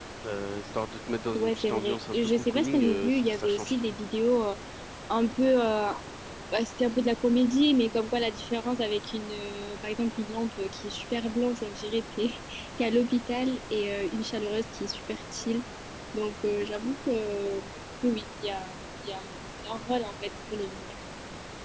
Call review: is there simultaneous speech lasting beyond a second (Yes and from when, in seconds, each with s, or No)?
Yes, from 1.4 s